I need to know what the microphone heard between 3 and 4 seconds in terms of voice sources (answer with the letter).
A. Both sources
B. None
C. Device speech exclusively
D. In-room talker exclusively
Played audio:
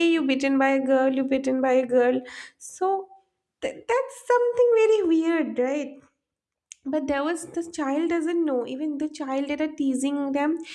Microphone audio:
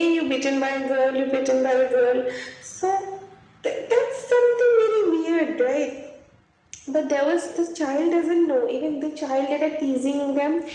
C